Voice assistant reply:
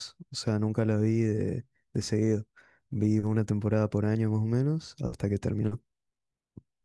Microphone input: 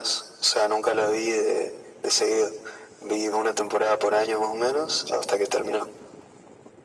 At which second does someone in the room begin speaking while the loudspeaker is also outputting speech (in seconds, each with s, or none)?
none